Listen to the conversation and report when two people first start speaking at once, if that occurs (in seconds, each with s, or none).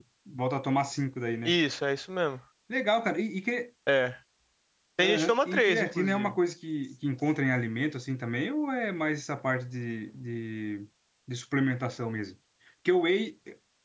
5.0 s